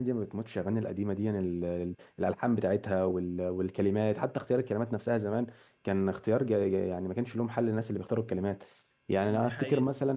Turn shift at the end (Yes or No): No